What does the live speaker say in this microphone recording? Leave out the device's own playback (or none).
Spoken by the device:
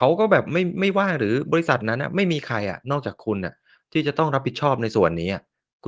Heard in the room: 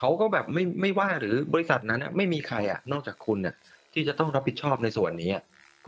none